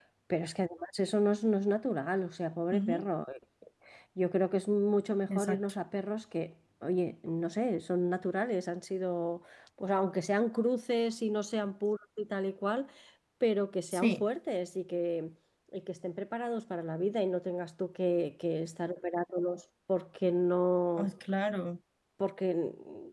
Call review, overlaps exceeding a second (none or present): none